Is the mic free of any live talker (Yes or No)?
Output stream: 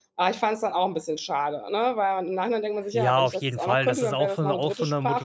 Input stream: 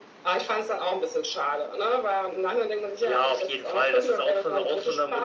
Yes